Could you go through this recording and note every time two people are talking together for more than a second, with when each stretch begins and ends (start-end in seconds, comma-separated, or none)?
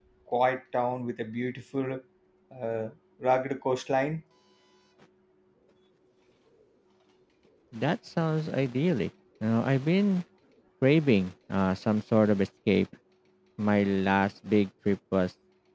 none